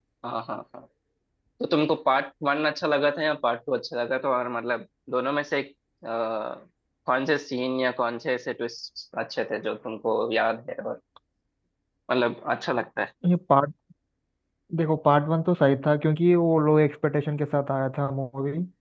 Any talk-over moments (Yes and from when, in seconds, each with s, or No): No